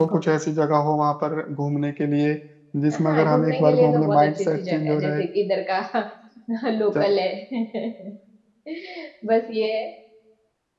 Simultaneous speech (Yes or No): Yes